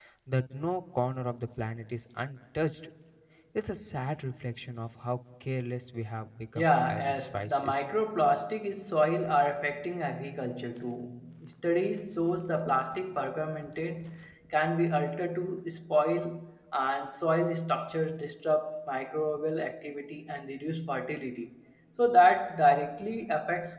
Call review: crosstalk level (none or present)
present